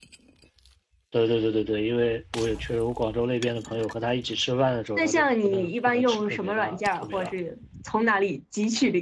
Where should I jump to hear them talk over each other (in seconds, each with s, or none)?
5.0 s